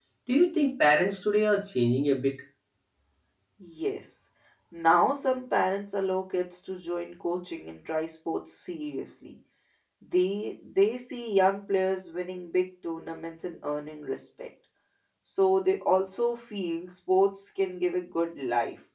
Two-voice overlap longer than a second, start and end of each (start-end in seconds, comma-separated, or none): none